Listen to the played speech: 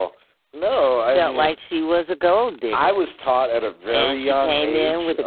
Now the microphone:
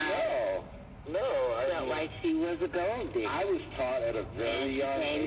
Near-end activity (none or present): none